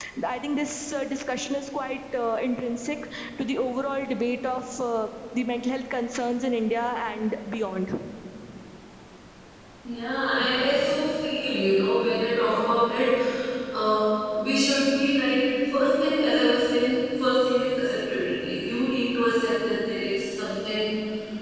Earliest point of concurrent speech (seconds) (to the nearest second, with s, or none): none